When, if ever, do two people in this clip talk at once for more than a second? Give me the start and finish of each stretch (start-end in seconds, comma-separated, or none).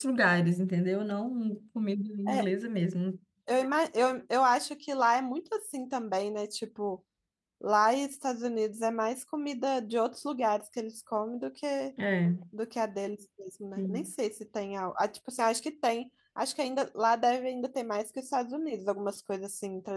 none